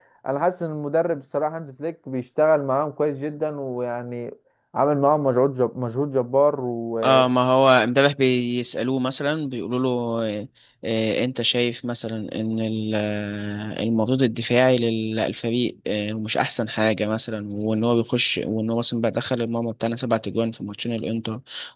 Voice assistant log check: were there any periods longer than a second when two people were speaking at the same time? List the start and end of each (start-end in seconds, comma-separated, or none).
none